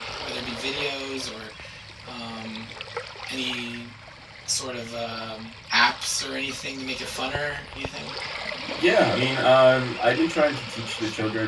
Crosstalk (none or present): none